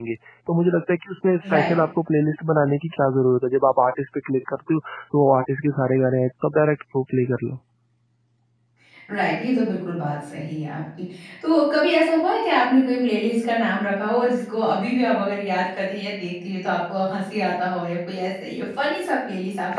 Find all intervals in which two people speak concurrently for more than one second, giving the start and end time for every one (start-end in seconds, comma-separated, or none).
none